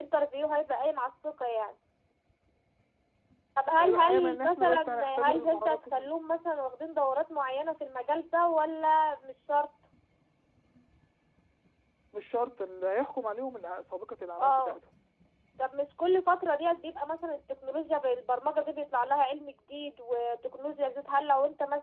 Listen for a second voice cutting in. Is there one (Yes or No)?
Yes